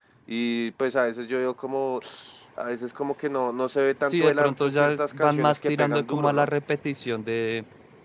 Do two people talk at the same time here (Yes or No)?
Yes